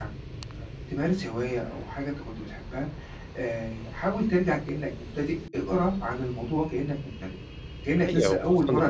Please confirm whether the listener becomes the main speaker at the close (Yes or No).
Yes